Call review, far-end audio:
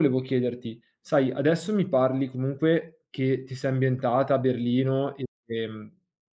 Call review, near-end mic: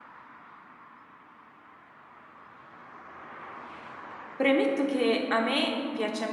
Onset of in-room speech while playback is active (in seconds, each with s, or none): 4.3 s